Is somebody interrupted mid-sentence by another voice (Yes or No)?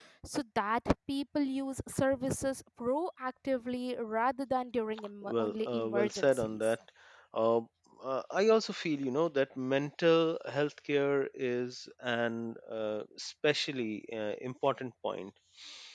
Yes